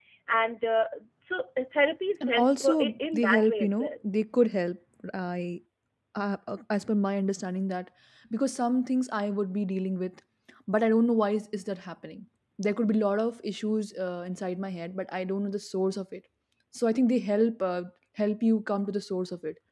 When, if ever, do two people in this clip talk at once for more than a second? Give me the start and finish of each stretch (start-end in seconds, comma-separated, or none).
2.3-3.9